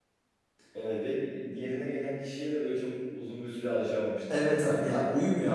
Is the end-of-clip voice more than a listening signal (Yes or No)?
Yes